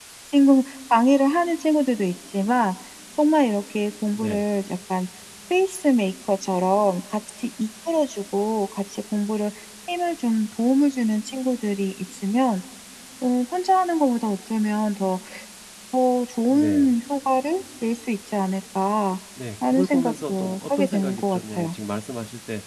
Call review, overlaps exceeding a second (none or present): present